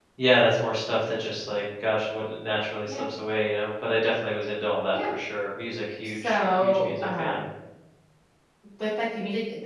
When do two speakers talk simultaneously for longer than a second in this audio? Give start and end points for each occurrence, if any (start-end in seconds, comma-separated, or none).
6.0-7.4